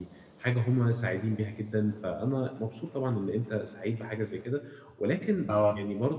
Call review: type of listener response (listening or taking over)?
listening